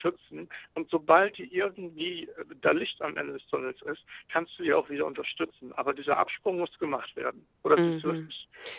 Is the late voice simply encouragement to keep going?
No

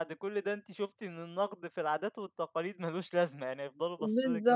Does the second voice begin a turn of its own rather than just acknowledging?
Yes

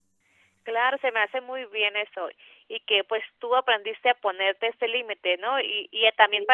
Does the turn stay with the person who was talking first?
Yes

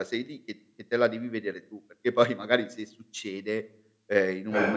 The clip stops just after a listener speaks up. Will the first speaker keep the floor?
Yes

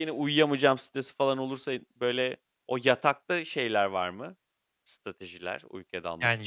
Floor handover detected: Yes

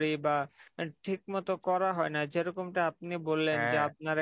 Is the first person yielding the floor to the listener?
No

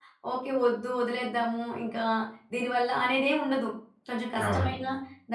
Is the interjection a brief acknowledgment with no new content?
Yes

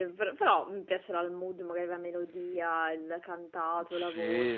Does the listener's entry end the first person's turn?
Yes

